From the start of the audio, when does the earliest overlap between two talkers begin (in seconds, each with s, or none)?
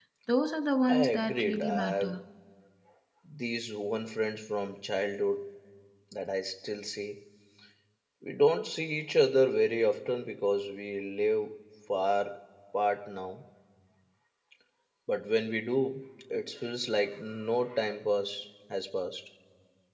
0.9 s